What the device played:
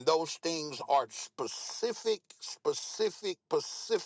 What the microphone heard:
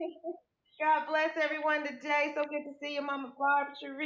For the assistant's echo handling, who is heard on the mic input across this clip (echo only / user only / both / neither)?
user only